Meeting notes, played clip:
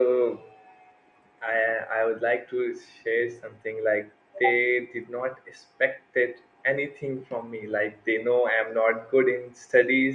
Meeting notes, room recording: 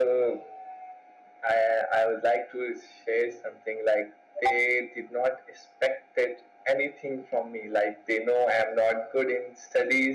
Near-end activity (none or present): none